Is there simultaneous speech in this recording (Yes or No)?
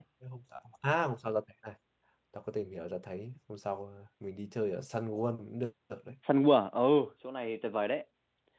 No